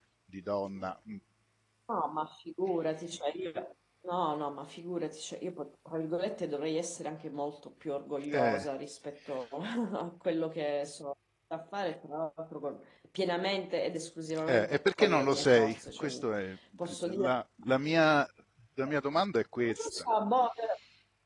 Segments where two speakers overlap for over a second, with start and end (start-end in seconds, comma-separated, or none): 14.5-16.1